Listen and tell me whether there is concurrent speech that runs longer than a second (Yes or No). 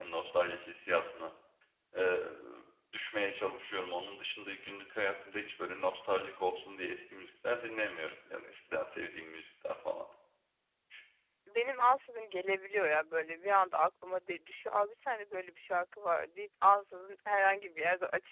No